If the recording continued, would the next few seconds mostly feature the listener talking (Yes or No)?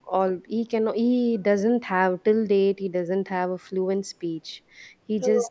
No